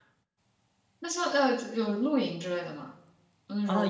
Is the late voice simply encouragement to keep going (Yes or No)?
No